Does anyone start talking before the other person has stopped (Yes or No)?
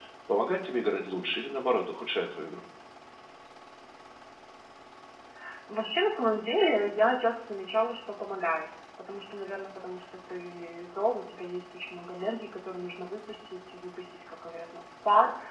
No